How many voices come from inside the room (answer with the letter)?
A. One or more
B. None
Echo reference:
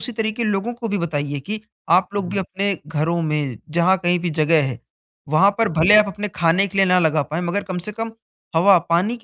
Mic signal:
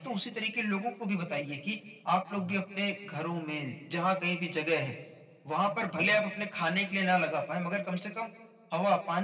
B